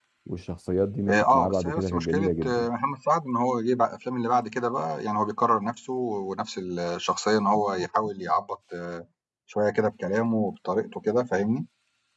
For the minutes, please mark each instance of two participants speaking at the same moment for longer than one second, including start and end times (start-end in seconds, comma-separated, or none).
1.1-2.7